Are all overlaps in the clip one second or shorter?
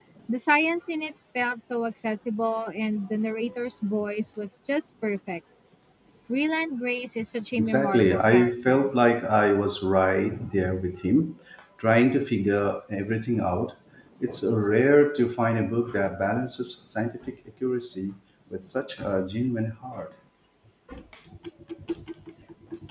No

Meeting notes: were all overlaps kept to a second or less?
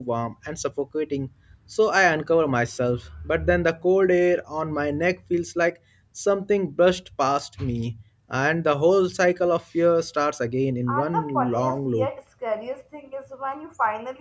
No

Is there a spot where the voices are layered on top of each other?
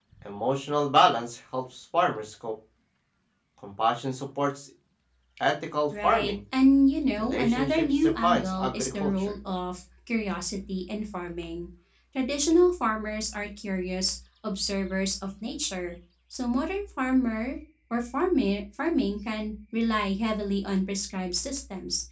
Yes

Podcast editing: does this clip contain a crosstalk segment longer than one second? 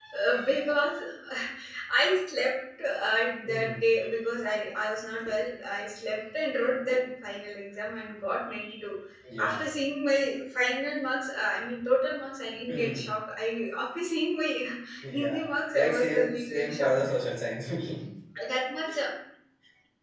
Yes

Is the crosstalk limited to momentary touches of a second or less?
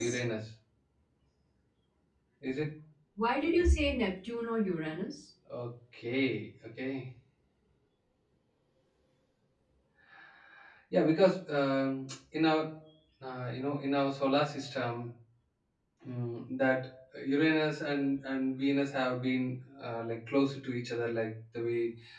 Yes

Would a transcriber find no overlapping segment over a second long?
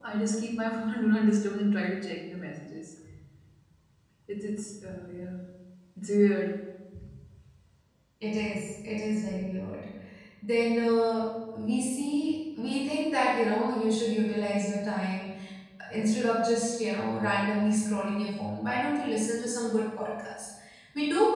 Yes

